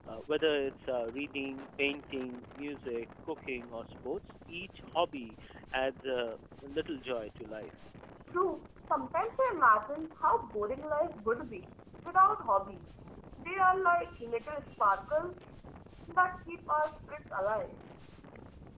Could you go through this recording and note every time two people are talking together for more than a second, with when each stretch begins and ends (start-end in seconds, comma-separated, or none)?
none